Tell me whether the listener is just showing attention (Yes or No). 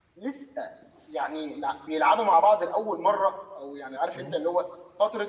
Yes